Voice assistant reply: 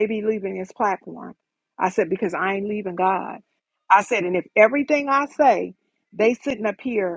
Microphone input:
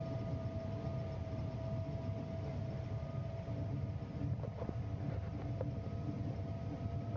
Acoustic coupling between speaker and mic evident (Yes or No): No